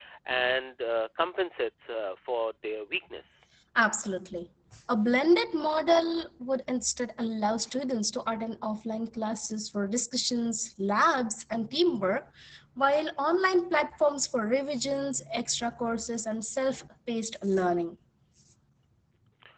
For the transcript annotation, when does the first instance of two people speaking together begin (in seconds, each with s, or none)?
none